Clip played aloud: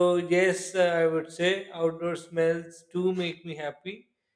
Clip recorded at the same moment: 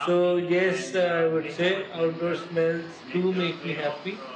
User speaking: Yes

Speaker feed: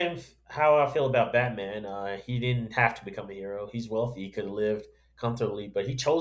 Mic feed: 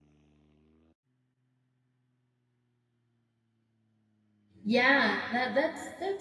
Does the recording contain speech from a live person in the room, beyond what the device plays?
Yes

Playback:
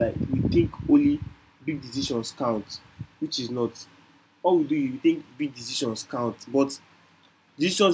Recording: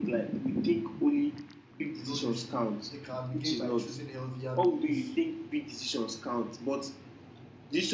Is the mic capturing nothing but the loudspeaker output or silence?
No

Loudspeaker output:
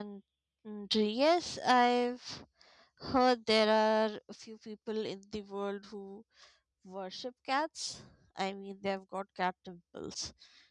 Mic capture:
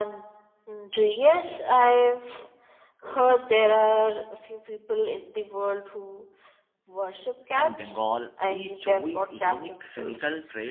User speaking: Yes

